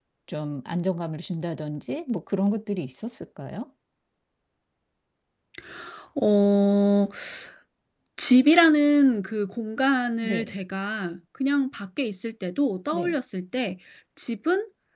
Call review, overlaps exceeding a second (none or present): none